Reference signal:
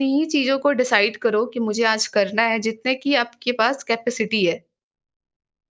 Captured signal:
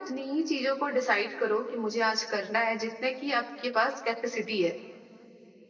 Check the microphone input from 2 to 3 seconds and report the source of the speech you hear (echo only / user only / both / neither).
echo only